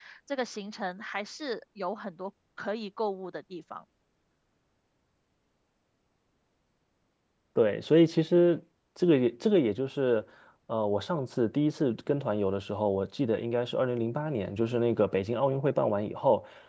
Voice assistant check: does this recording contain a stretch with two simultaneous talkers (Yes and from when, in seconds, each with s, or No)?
No